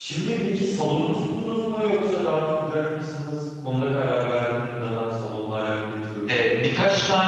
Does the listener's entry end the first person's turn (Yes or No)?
Yes